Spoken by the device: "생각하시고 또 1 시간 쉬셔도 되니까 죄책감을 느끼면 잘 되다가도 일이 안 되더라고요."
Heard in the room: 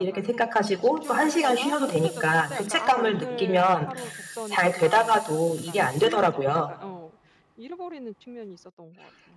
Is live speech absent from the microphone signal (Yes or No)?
No